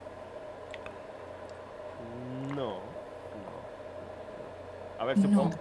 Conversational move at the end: listening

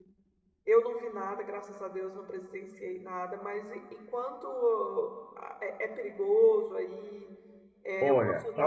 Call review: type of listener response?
taking over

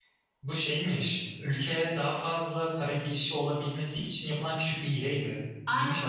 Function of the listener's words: taking over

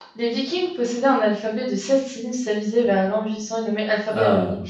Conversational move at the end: listening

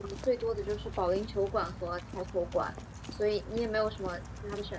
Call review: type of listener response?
listening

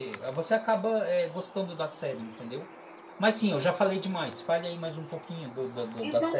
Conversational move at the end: taking over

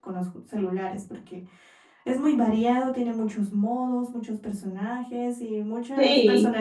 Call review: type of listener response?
taking over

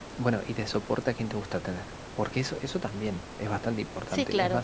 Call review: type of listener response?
taking over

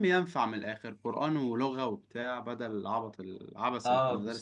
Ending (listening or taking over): taking over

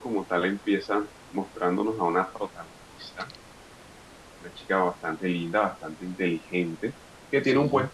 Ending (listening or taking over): listening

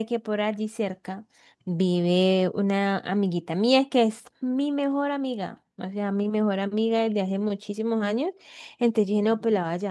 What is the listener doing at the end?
listening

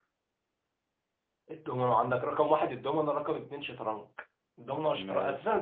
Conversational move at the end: listening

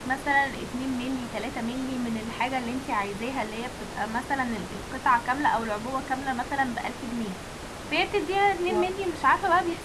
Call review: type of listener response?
listening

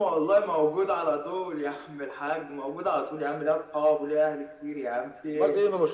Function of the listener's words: taking over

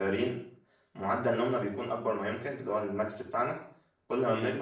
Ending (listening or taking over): listening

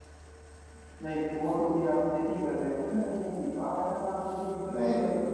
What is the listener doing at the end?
listening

